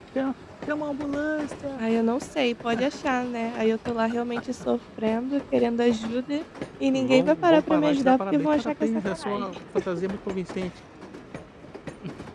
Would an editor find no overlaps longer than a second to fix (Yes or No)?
No